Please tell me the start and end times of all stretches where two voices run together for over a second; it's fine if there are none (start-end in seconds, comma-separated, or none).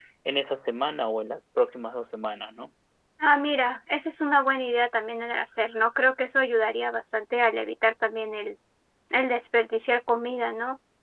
none